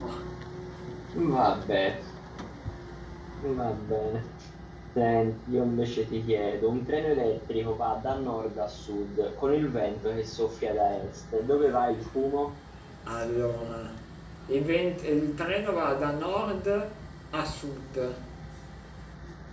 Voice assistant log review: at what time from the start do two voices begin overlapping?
none

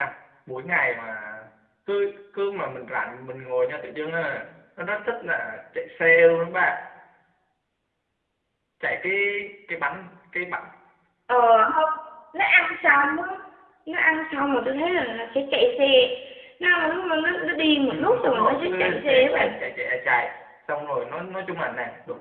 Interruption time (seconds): 17.9 s

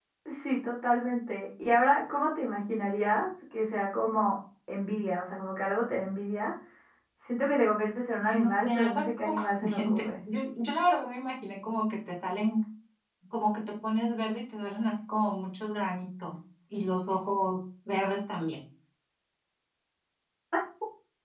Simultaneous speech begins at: 8.3 s

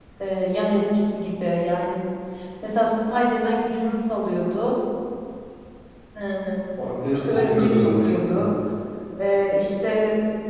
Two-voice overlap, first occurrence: 7.1 s

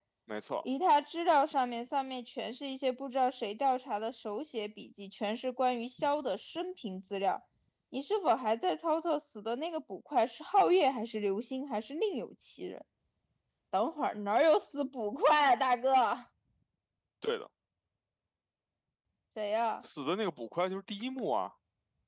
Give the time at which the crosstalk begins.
none

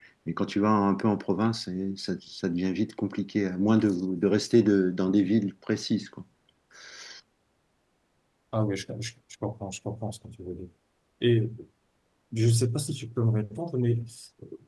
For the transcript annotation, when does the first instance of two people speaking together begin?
none

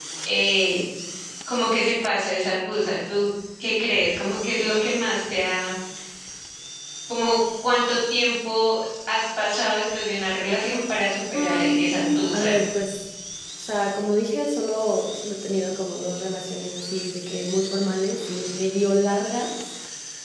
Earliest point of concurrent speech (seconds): 11.3 s

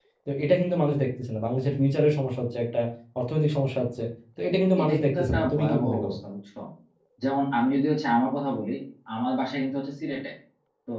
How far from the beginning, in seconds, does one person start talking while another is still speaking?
4.8 s

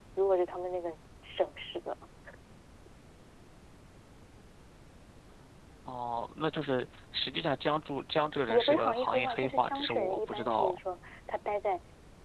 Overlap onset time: 8.5 s

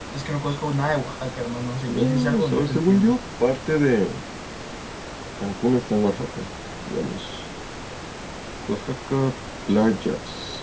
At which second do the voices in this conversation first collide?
1.9 s

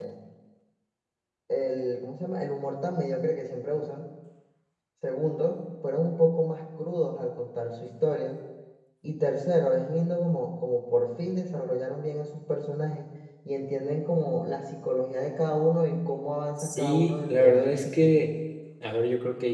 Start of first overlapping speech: 16.6 s

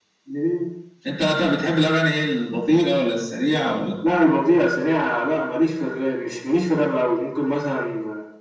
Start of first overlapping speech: none

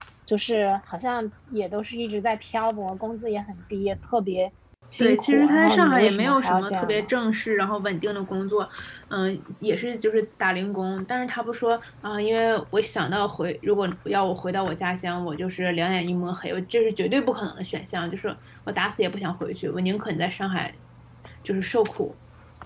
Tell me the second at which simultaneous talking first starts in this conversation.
5.0 s

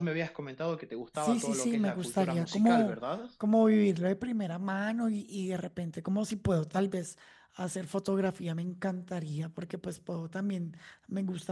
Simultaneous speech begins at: 1.1 s

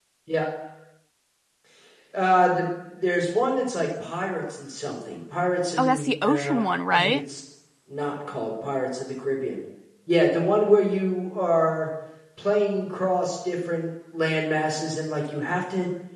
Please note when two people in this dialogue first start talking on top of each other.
5.8 s

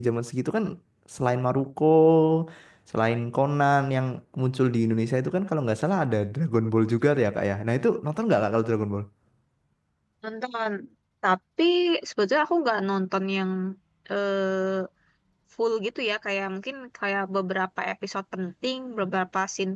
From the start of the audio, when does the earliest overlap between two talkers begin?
none

